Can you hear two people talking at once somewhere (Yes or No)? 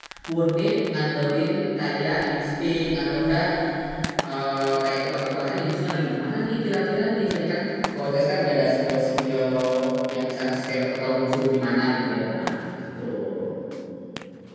No